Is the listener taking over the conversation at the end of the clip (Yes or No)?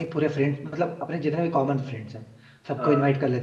No